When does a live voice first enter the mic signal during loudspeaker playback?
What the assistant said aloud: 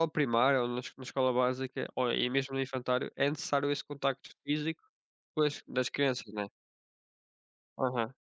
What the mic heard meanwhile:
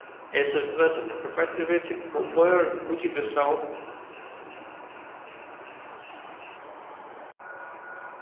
0.3 s

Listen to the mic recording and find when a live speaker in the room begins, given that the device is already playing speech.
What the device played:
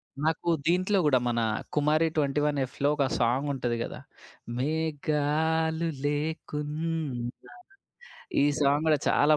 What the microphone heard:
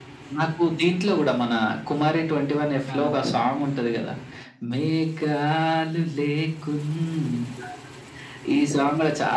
2.9 s

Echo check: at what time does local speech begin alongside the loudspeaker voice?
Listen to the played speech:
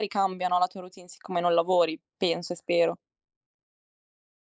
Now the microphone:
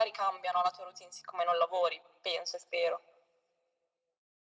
none

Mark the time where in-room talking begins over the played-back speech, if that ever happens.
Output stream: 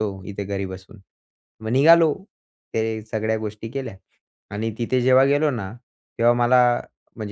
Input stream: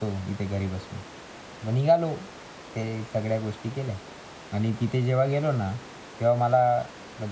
none

